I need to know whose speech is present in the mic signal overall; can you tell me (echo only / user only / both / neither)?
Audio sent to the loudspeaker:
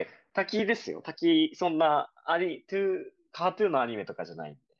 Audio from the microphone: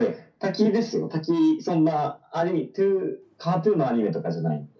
echo only